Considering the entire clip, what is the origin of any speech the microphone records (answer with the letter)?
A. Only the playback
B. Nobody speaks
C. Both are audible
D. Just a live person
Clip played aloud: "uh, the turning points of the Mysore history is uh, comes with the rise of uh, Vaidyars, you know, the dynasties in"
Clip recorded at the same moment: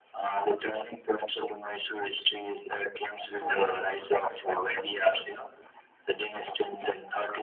C